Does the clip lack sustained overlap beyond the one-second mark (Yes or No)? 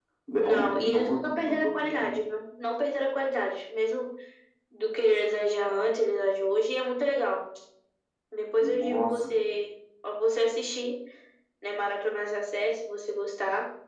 No